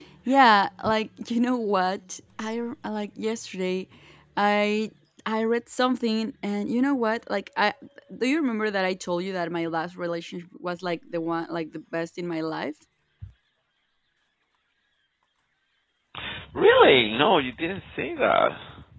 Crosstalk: none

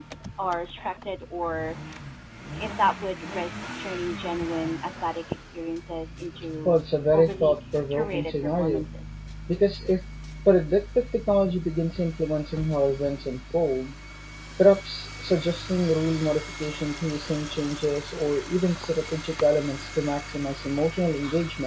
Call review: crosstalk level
present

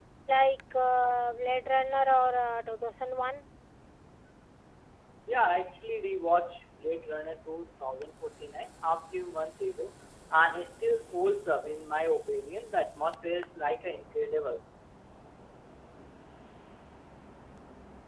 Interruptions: none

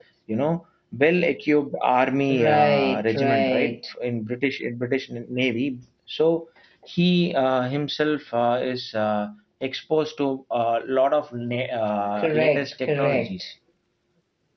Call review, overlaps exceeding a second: present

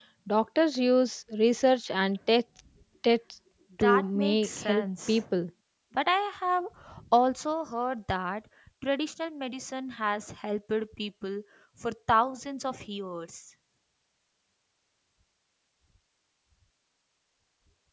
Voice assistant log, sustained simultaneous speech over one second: present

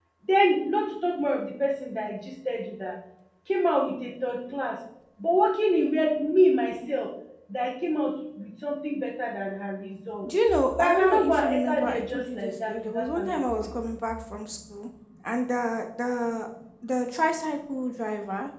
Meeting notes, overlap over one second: present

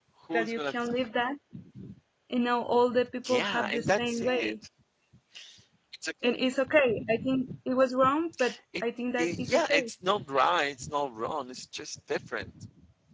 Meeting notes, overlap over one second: present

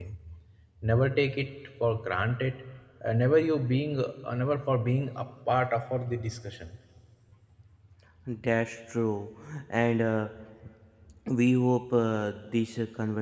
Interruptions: none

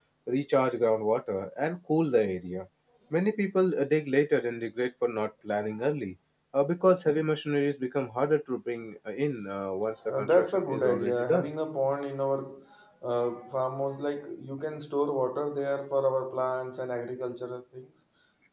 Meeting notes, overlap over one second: present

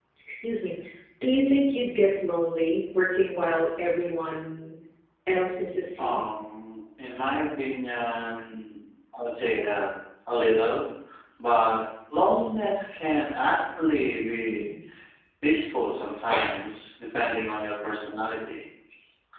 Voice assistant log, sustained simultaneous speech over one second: none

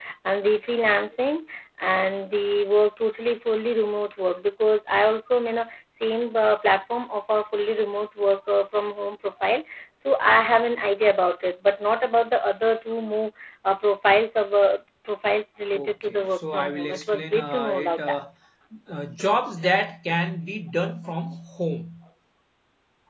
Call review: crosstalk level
present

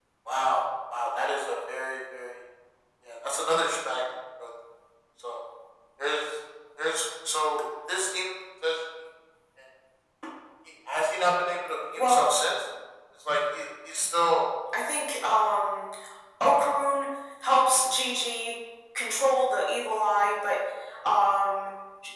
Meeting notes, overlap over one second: none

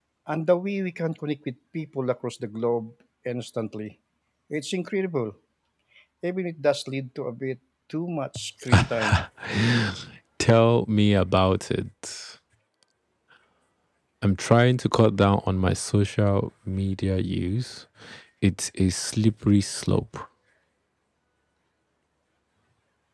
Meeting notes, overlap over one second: none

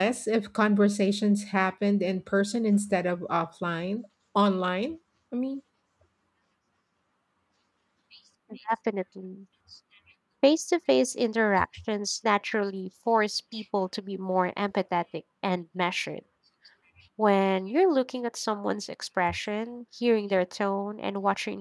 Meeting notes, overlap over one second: none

